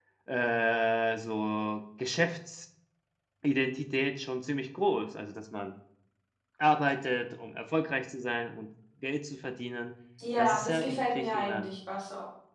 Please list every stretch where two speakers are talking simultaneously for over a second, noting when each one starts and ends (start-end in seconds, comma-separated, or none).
10.4-11.7